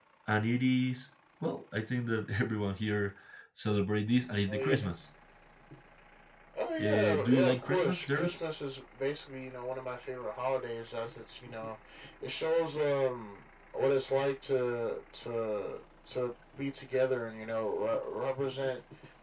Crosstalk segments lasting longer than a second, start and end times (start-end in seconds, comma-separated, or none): 6.8-8.3